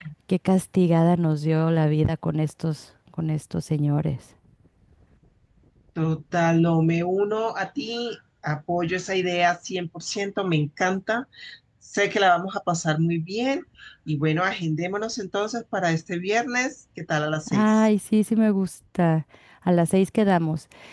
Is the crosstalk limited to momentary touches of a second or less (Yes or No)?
Yes